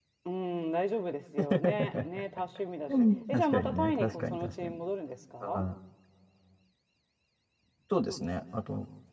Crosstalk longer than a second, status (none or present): present